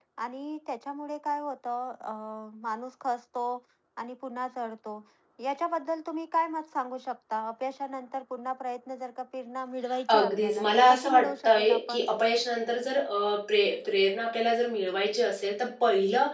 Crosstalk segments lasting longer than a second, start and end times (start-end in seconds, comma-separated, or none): 10.1-12.1